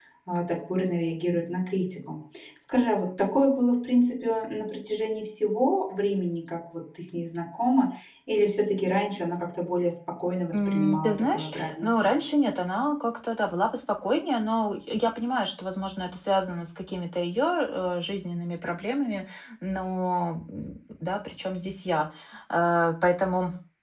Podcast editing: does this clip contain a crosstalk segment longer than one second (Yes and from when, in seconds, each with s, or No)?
Yes, from 10.5 s